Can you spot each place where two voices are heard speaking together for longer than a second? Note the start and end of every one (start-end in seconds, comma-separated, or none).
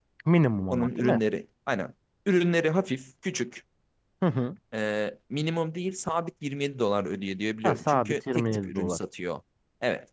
7.6-9.0